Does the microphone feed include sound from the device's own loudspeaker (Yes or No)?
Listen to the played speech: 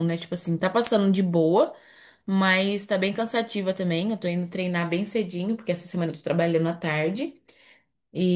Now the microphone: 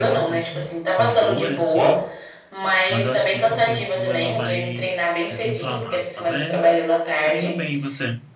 Yes